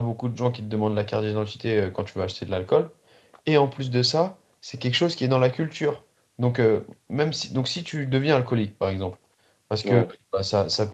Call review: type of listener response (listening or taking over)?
listening